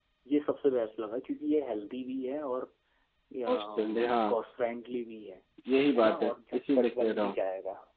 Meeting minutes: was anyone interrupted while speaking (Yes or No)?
Yes